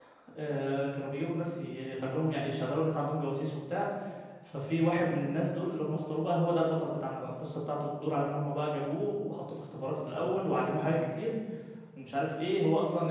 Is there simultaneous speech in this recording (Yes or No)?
No